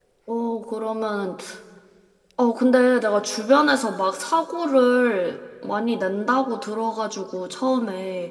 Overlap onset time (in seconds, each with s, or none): none